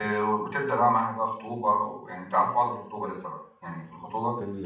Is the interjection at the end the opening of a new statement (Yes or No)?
Yes